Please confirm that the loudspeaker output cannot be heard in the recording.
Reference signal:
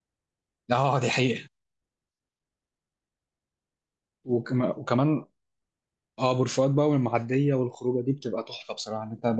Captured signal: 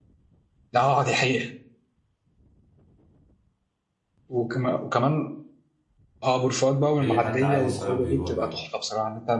No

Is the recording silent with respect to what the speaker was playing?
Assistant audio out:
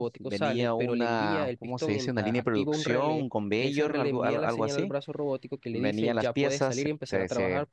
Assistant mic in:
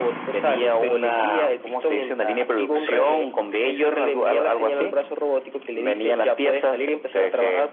No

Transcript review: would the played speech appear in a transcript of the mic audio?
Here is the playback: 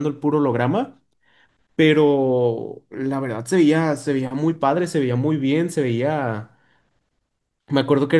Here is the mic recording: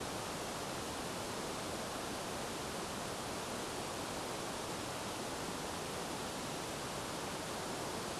No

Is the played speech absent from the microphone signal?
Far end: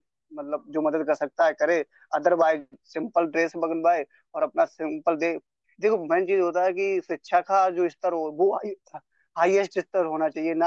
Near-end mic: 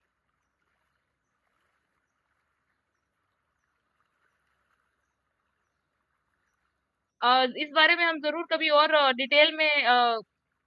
Yes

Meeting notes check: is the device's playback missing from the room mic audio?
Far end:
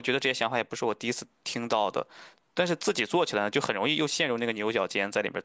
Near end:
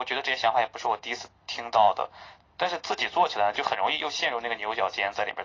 No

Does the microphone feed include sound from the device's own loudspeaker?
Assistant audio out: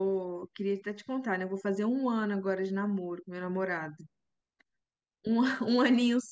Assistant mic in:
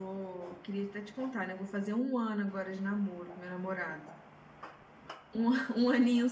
Yes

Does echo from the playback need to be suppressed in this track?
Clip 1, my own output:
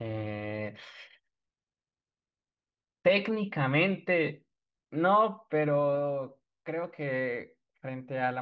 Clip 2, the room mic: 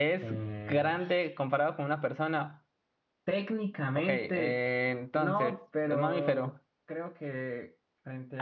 Yes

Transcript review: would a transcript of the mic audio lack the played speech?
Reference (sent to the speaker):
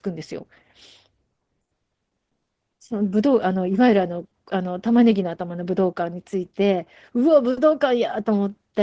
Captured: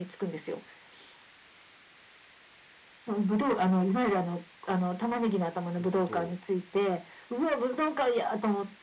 No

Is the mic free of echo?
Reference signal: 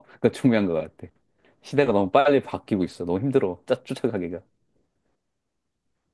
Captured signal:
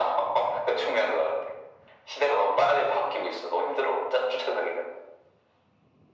No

